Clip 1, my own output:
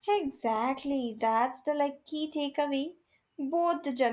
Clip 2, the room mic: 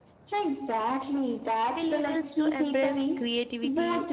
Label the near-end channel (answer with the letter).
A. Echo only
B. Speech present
B